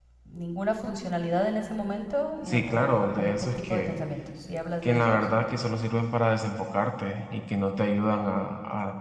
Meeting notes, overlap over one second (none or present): present